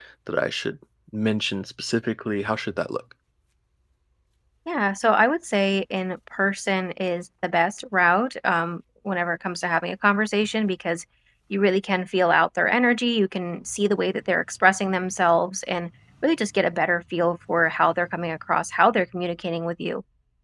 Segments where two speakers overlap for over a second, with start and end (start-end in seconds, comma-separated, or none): none